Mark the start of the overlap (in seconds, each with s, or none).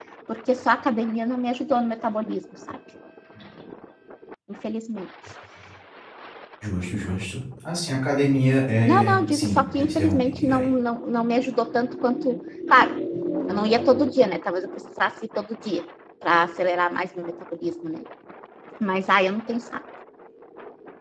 8.9 s